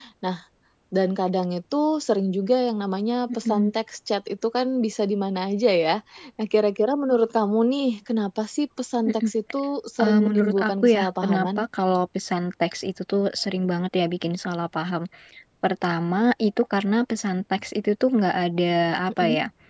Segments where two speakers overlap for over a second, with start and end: 10.0-11.5

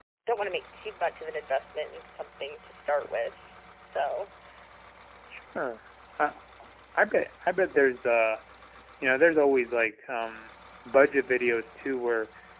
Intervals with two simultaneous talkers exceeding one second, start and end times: none

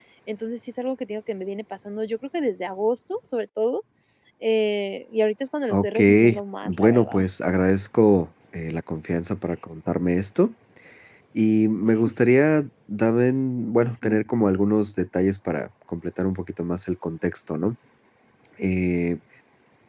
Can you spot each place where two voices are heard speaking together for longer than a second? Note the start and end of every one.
5.7-7.2

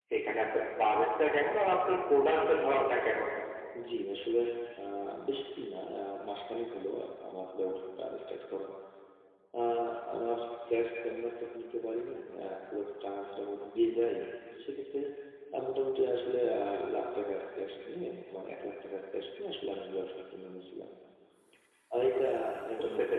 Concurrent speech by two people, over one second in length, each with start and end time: none

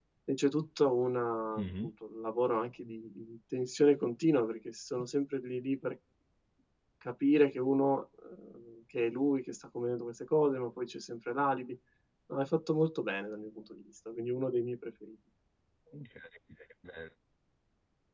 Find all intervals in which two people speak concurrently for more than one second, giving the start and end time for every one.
none

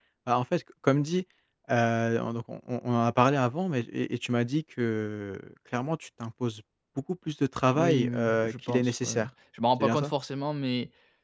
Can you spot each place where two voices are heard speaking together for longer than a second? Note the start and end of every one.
7.8-9.2

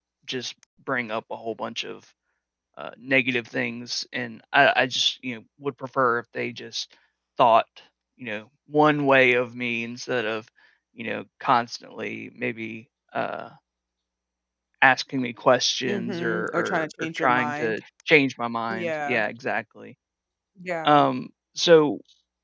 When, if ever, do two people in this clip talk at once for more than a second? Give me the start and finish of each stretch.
15.8-17.7

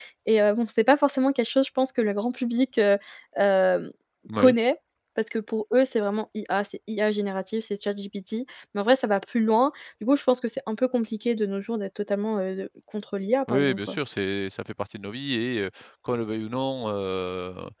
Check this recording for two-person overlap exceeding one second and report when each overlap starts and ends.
none

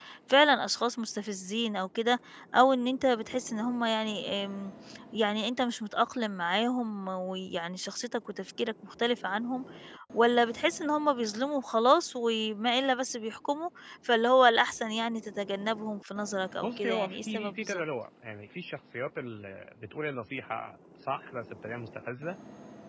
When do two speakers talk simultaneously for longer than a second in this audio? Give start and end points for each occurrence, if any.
16.6-17.8

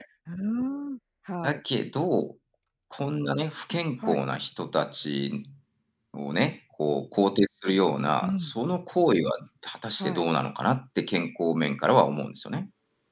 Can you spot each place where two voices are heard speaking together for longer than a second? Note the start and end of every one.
none

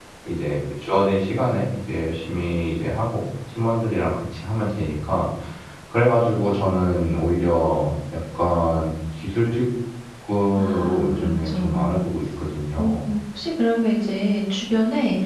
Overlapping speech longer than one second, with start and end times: 10.6-12.0

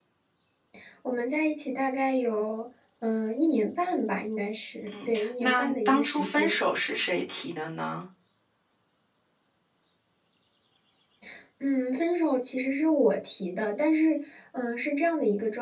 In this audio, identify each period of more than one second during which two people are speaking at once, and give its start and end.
5.0-6.6

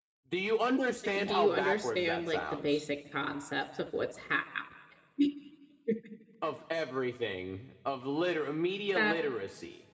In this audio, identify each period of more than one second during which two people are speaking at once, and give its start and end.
1.2-2.8

